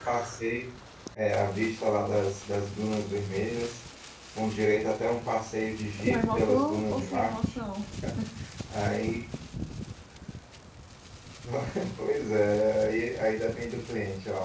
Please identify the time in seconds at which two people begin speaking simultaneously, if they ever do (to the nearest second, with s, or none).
6 s